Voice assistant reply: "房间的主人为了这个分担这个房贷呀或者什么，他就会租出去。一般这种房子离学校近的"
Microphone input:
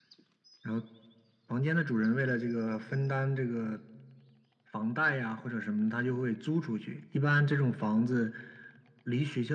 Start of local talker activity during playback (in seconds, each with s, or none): none